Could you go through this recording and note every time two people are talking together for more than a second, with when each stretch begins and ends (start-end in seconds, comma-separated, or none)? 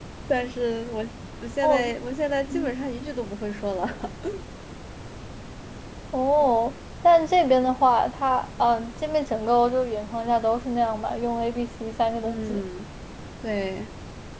none